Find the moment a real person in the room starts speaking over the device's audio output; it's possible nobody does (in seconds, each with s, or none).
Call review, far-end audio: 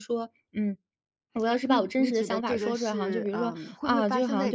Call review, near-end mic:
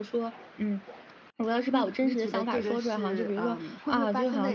none